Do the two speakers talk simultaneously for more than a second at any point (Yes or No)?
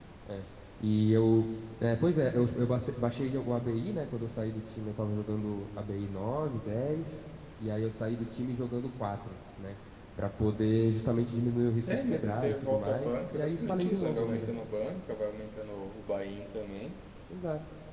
Yes